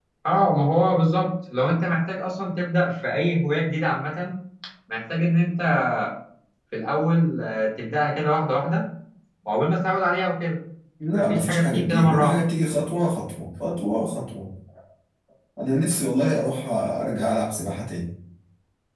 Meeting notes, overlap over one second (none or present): present